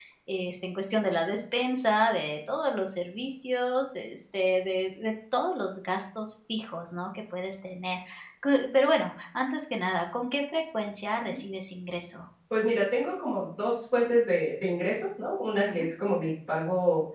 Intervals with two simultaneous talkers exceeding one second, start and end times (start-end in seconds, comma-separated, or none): none